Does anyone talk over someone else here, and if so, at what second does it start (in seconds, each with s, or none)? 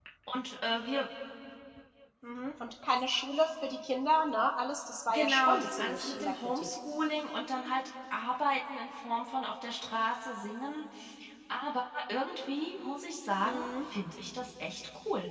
5.1 s